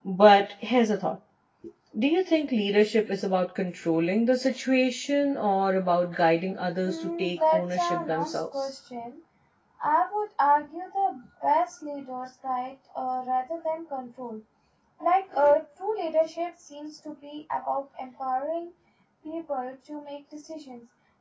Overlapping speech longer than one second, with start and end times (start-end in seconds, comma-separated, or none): 6.8-8.7